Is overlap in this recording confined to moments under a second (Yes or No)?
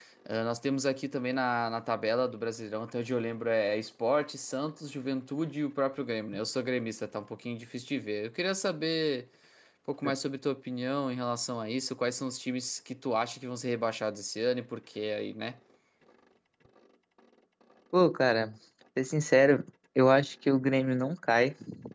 Yes